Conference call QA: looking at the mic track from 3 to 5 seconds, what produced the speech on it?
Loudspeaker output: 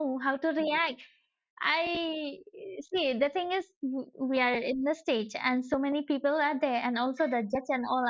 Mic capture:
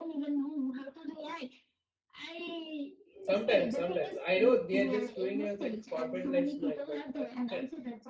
both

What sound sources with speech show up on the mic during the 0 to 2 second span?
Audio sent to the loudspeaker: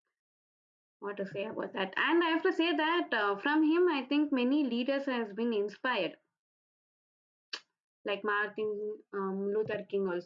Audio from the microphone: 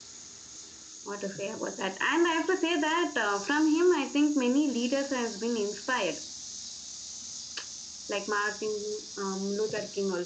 echo only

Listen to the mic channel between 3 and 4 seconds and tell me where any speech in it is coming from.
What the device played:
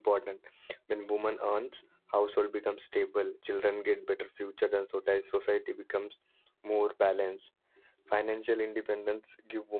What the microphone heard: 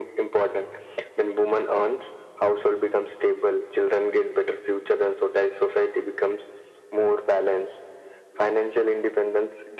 echo only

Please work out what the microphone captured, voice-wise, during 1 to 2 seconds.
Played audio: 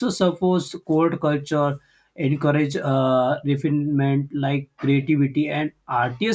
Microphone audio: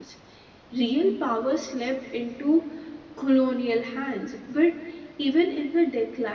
user only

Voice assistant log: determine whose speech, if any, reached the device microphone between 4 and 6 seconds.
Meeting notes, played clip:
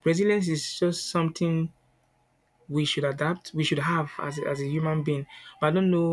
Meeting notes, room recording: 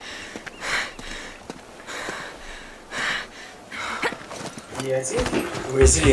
user only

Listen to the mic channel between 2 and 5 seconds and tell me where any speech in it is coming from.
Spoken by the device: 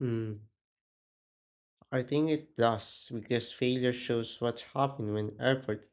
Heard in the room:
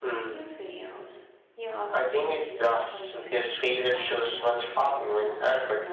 both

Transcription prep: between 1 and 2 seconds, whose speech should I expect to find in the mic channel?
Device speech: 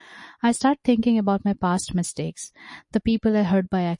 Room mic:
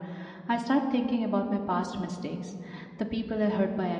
echo only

